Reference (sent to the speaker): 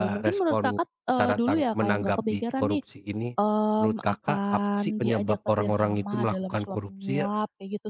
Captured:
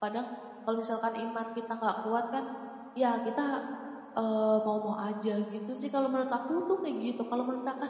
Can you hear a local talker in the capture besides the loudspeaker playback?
Yes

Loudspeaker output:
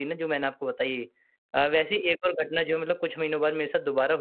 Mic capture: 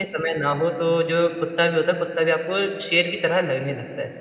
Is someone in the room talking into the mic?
Yes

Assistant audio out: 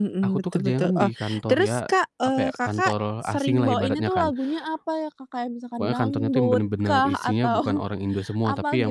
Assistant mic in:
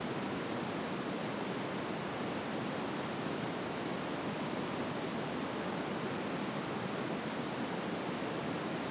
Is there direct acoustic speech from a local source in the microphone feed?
No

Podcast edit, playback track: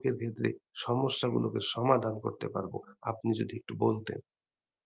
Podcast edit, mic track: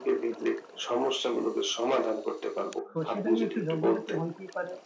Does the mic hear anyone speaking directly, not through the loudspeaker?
Yes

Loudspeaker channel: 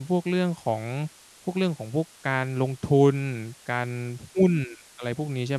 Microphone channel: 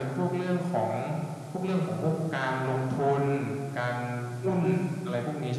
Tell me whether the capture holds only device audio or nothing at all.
Yes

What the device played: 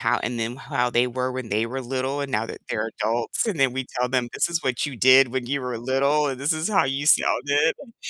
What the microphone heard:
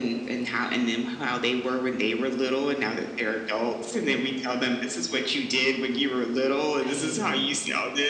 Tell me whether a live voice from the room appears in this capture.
Yes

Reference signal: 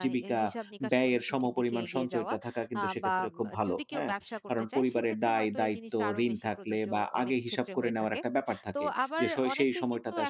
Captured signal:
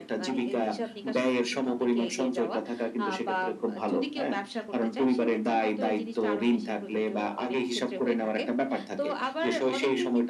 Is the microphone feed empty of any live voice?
Yes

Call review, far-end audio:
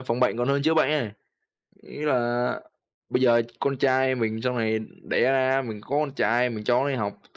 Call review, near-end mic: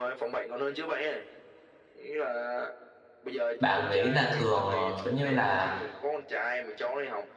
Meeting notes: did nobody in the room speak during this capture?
No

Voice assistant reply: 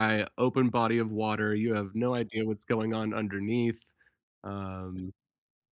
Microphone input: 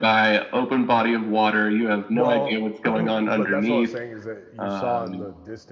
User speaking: Yes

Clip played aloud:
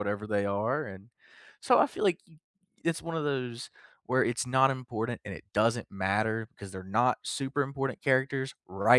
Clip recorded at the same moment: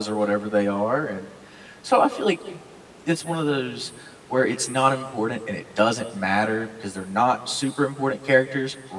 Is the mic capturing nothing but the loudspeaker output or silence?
Yes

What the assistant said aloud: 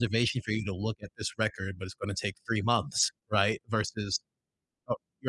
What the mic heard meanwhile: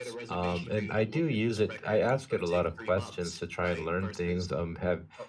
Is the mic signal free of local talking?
No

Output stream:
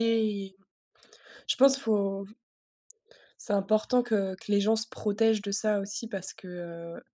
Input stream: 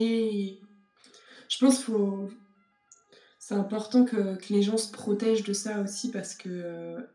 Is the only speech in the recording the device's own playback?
Yes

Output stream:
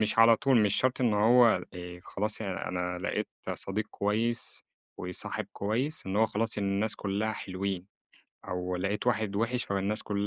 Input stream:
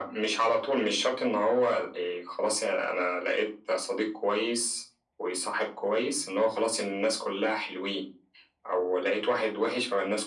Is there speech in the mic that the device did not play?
No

